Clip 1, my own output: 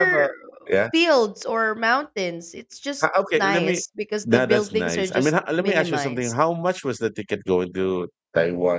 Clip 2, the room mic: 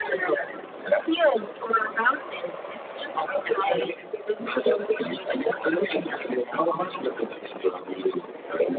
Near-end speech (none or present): none